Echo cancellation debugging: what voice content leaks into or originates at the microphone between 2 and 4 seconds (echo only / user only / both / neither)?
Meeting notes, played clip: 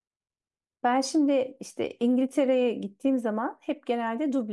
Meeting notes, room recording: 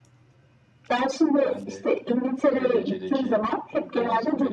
both